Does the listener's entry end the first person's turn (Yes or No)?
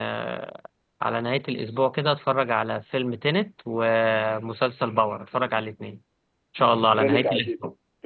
Yes